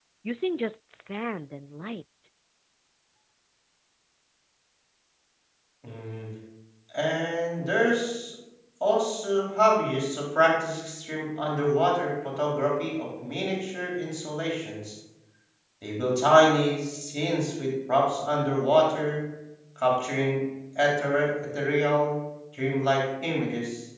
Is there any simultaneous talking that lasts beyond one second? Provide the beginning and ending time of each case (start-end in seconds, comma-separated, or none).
none